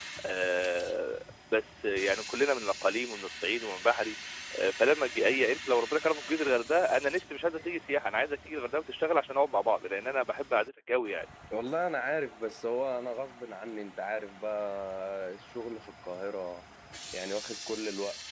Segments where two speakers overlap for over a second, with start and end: none

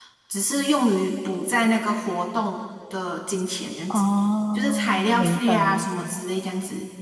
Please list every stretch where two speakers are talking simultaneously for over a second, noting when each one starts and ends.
4.5-6.2

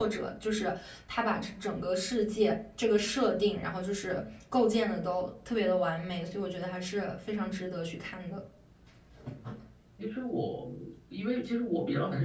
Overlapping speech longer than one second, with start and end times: none

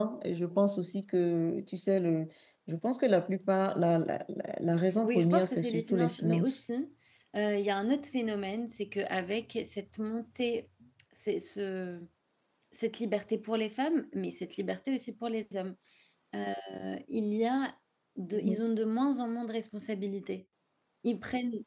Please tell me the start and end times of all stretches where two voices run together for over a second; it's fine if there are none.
5.0-6.6

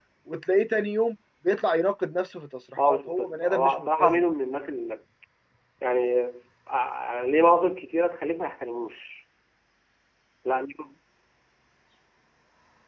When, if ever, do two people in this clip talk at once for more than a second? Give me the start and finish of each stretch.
2.8-4.2

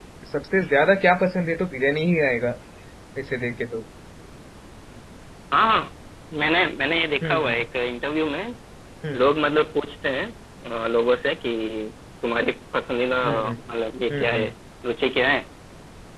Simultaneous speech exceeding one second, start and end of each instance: none

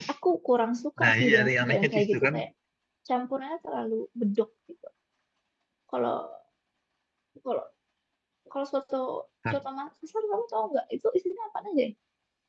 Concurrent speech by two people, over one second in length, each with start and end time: 1.0-2.4

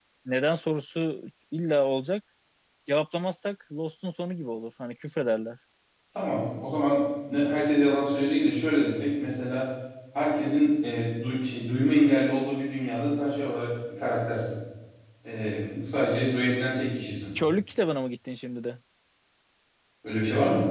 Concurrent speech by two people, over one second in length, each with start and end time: none

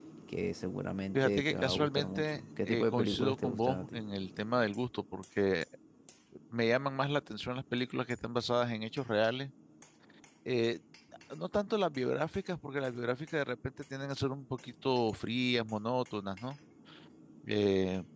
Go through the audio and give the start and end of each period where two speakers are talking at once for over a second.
1.1-4.0

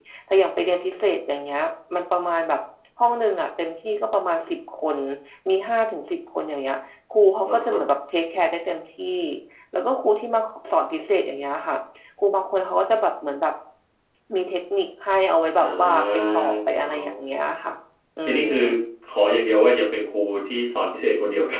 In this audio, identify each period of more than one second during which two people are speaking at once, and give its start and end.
15.6-17.2

